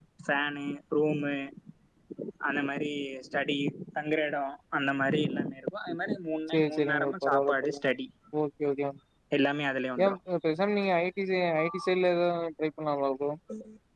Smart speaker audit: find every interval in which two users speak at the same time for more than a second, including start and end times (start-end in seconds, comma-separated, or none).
6.5-7.8